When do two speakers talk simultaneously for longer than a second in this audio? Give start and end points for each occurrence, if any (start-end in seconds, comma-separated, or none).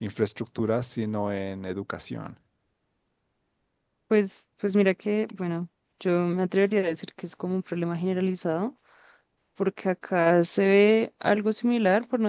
none